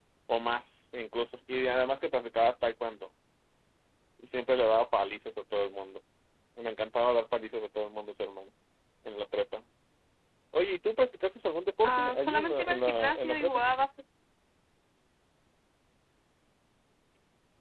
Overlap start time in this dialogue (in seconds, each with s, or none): 11.8 s